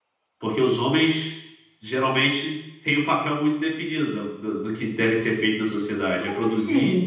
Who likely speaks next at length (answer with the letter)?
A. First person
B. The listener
B